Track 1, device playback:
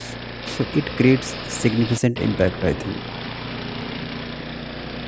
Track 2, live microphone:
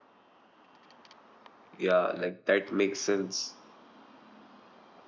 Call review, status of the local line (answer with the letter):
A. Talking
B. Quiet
A